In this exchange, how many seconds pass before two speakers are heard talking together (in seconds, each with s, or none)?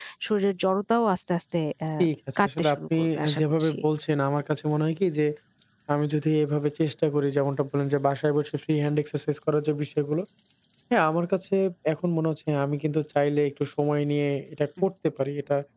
2.5 s